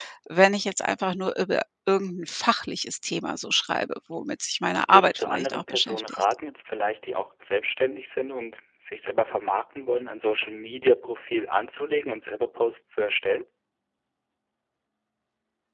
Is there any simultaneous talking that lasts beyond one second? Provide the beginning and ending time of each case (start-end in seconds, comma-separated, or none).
4.9-6.2